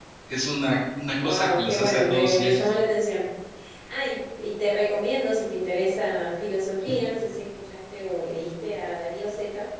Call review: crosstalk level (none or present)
present